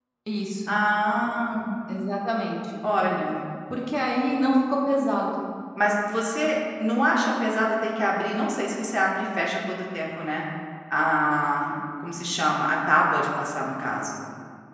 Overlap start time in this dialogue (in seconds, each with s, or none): none